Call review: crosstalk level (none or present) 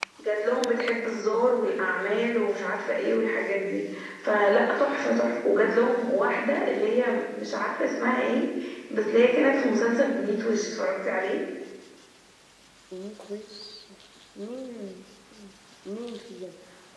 none